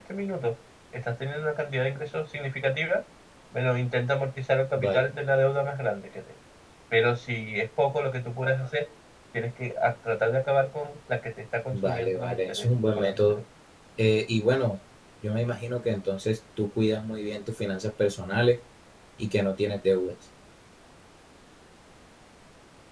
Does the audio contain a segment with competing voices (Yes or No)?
Yes